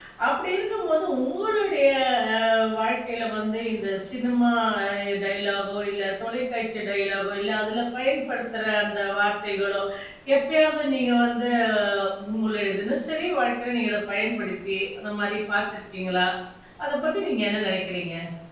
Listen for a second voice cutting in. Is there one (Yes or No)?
No